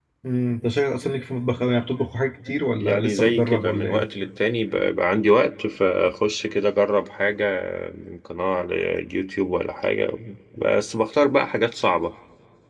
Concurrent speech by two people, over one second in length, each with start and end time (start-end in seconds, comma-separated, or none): 2.8-4.0